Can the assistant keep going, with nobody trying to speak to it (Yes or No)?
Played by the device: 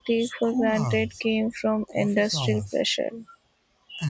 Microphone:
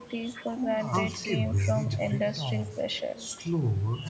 No